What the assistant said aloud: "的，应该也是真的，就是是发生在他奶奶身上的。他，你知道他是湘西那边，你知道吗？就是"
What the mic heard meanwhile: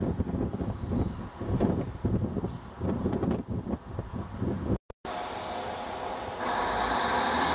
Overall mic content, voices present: neither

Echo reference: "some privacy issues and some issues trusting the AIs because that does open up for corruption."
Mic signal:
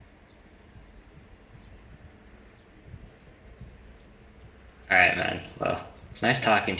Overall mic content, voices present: user only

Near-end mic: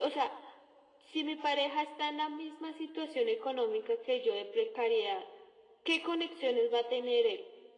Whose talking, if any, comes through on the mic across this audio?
echo only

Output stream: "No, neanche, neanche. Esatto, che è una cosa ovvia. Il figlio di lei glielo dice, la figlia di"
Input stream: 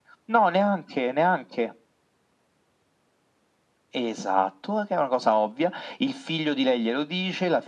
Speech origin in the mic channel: echo only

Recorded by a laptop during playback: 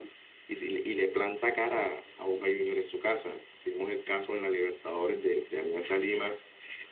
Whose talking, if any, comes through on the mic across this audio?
echo only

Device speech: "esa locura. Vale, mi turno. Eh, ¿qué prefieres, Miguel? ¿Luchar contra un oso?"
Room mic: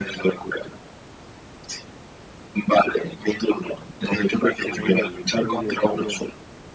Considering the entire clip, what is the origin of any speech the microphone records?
both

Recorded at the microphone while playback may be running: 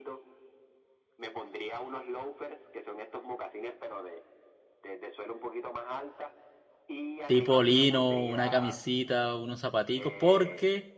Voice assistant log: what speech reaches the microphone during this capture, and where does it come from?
both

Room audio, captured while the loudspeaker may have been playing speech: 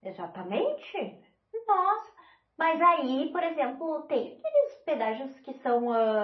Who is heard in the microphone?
user only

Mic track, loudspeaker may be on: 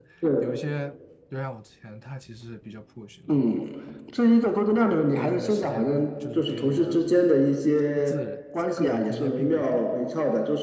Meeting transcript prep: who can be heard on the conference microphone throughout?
both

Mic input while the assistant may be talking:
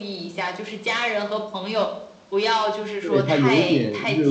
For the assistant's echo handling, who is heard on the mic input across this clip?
both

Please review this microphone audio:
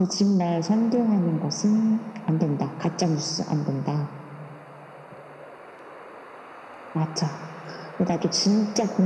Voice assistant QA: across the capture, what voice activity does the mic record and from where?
echo only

